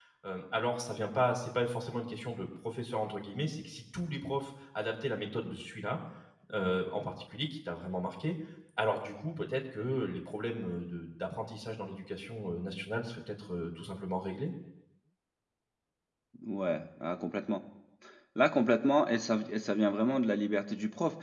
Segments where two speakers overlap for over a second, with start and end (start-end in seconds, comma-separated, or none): none